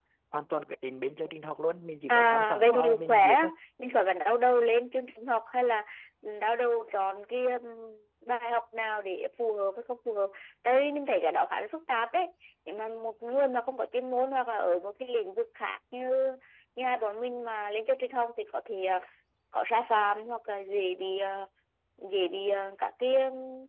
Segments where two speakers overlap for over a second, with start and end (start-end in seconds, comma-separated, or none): 2.1-3.5